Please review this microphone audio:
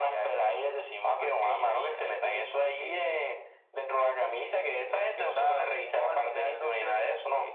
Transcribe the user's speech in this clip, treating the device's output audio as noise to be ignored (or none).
none